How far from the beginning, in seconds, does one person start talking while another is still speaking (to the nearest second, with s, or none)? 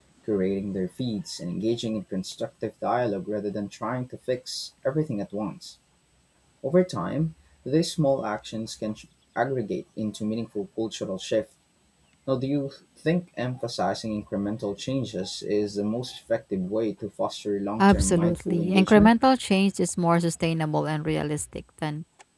18 s